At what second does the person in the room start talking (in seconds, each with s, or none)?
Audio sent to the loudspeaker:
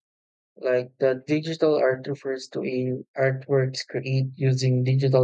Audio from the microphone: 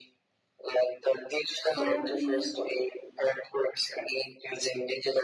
1.7 s